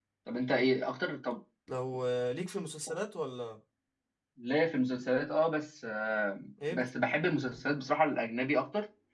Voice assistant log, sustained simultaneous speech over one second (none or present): none